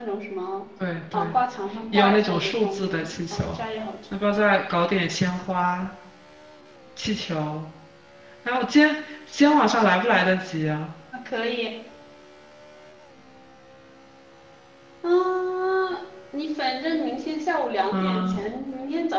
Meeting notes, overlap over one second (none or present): present